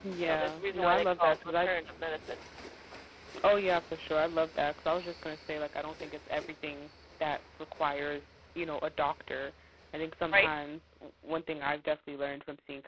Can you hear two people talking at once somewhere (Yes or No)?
Yes